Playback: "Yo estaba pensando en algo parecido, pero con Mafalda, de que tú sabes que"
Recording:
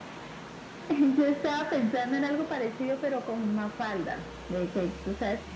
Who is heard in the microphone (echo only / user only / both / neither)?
echo only